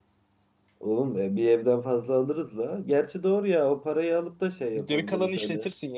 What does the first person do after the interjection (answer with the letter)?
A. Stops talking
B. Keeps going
A